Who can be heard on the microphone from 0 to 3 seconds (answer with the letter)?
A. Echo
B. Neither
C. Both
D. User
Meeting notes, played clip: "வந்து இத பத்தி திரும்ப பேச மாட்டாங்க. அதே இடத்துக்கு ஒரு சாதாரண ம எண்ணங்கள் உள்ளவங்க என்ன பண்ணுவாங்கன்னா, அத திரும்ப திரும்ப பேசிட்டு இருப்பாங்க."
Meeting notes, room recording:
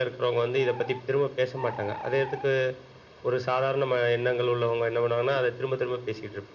A